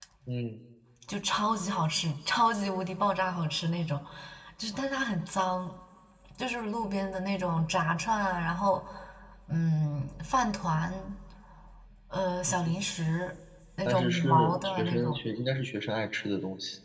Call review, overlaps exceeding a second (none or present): present